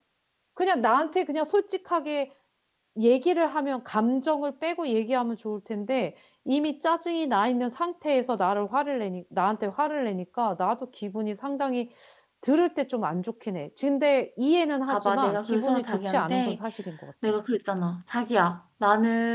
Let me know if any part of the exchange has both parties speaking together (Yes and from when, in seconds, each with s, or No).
Yes, from 14.9 s